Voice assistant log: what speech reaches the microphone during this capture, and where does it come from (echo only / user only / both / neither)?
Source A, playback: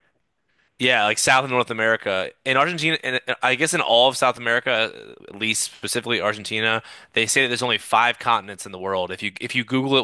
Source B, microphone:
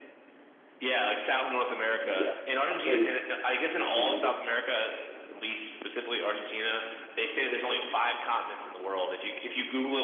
both